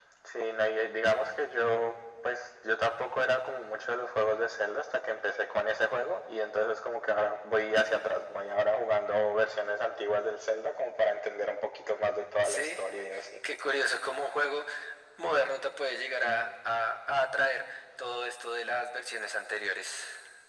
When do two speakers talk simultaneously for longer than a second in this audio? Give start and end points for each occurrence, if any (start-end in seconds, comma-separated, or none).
none